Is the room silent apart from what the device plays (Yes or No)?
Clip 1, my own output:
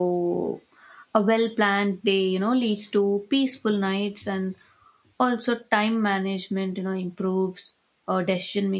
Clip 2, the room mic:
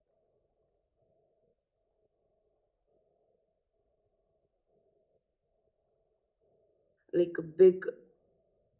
No